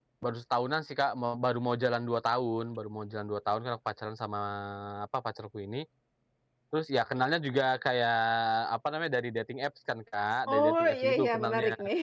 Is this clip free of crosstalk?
No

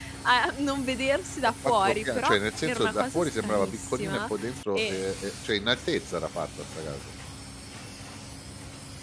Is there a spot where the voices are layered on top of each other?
Yes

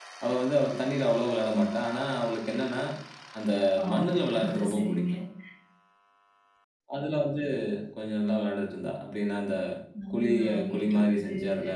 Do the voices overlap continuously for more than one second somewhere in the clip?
Yes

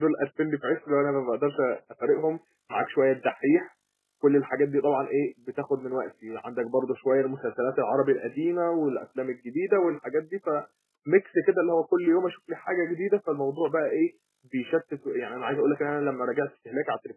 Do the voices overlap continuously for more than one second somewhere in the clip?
No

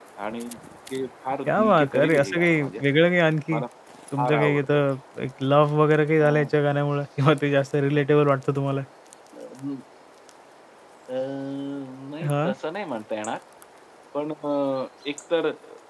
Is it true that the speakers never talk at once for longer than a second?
No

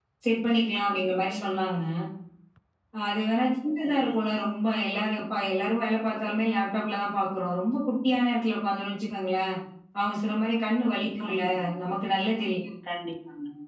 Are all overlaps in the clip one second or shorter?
Yes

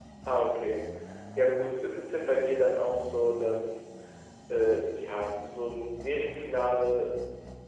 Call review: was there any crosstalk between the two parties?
No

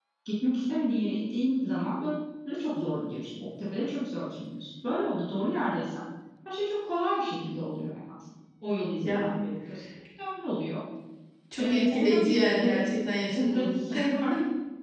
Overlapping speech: Yes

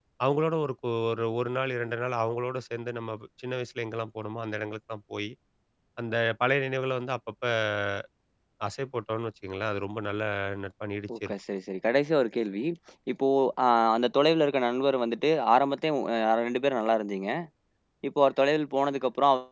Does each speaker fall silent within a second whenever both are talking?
Yes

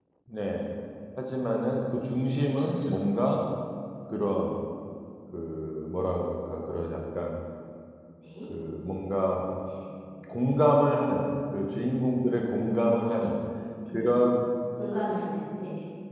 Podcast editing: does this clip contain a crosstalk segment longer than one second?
No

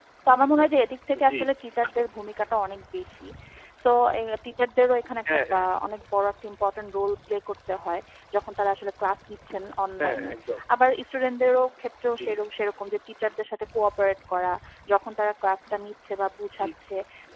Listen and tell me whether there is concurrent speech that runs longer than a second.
No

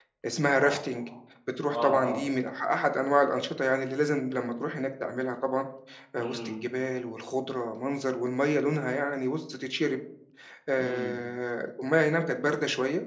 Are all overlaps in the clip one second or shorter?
Yes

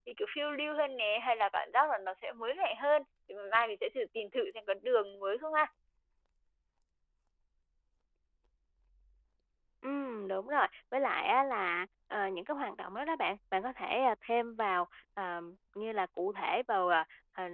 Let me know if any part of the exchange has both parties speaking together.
No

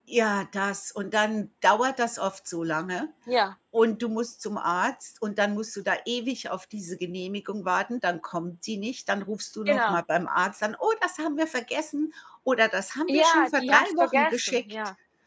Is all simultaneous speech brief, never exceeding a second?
No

